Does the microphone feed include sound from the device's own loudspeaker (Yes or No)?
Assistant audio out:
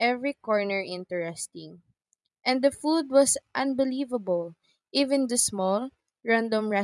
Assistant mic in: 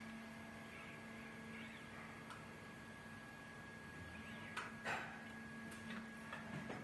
No